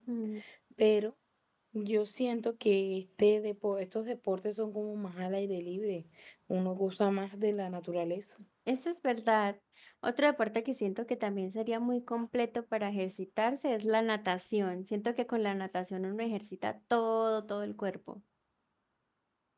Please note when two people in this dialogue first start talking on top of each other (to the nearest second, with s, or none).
none